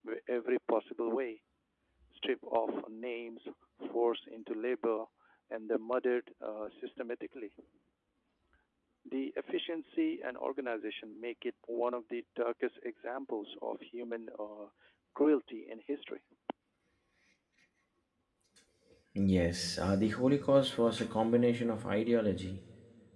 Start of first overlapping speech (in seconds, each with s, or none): none